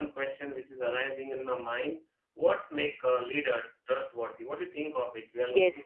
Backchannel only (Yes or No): No